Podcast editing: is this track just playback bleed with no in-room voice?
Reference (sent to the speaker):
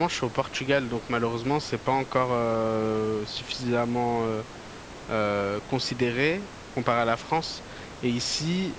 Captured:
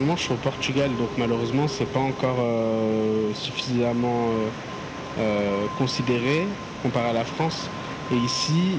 Yes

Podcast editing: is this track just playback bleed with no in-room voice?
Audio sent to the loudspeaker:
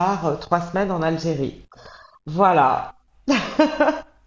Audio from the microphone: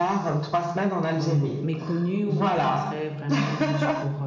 No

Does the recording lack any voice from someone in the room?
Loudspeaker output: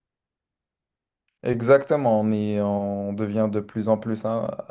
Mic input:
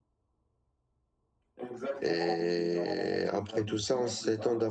No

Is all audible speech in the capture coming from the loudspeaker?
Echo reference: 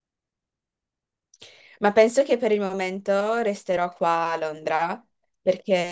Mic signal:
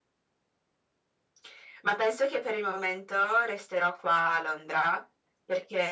Yes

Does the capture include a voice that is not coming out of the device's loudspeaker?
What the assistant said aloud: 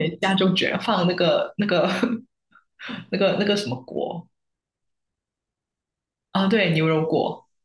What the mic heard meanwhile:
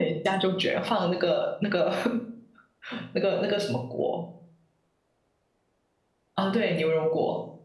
No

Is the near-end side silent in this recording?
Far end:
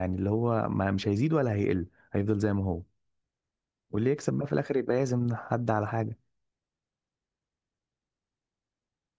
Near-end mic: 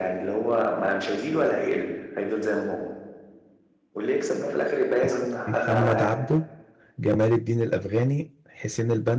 No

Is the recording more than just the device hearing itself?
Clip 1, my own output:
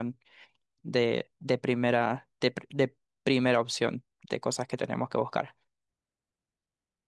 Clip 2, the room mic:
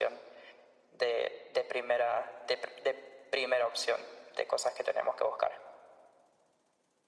No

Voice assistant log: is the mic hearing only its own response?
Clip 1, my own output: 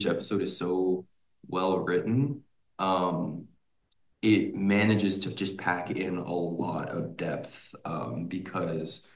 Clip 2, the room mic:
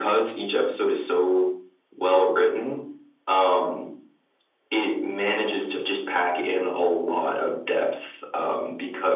Yes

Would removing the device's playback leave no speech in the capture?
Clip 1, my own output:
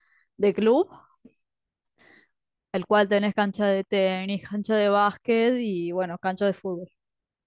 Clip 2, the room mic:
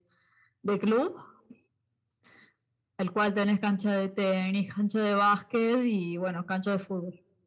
Yes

